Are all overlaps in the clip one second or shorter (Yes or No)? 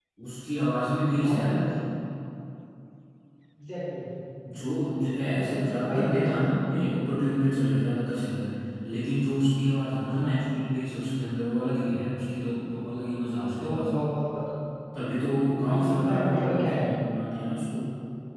No